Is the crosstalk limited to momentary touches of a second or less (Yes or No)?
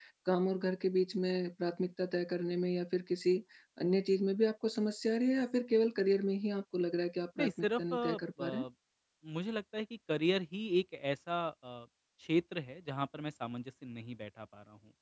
No